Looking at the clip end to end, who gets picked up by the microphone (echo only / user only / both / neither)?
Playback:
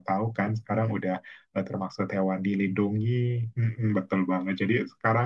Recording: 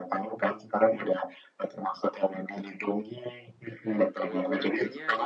both